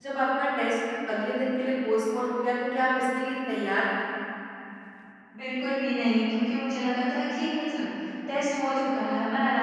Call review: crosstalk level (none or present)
none